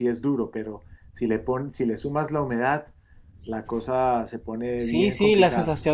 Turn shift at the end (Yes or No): Yes